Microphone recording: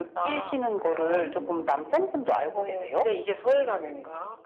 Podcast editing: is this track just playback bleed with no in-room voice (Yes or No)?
No